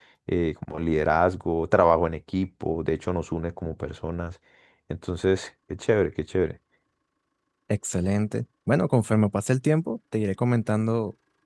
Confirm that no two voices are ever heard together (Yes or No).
Yes